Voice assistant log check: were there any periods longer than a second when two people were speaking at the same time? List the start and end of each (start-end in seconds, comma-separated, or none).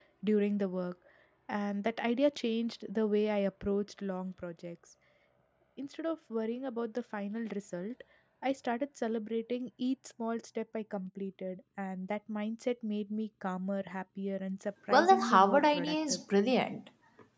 14.9-16.2